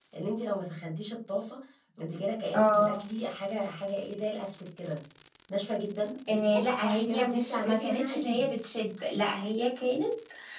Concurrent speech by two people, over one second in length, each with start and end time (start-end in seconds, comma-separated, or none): 6.3-8.5